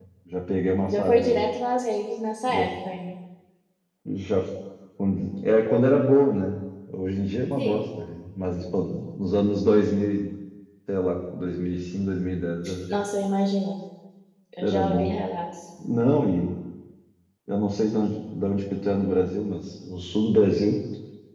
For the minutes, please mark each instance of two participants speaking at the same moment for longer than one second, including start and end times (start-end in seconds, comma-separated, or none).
none